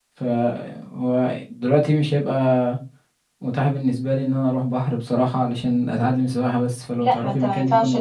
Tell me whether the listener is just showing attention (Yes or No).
No